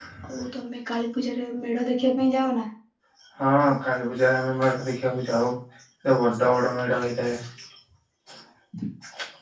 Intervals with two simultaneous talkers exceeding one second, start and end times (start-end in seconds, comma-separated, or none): none